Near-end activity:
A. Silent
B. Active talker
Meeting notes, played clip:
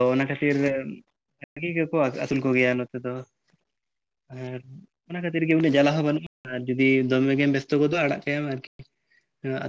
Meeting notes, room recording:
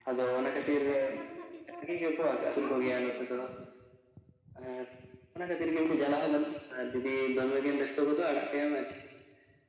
B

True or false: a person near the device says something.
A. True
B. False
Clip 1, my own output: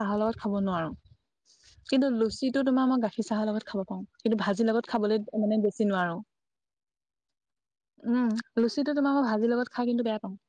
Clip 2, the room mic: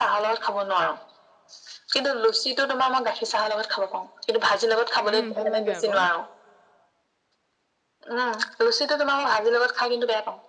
A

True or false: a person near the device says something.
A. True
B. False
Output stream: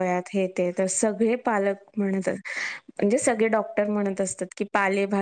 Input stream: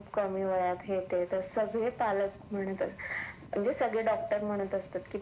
B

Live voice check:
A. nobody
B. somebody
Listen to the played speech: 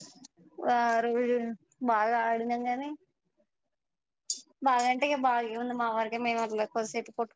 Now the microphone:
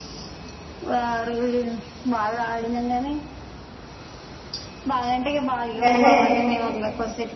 B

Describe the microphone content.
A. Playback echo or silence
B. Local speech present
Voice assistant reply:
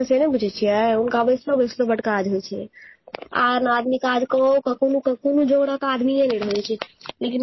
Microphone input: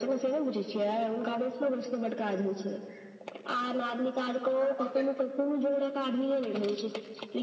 B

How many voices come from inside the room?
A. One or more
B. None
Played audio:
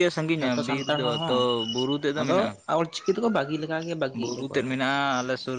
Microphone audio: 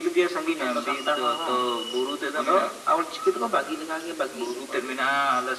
B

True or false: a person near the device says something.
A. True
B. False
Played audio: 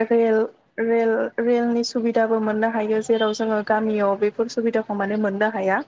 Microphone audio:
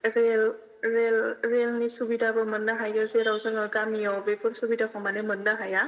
B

